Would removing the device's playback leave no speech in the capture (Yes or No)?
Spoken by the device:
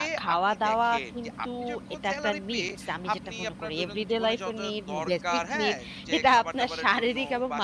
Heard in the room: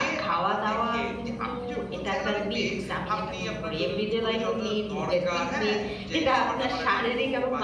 Yes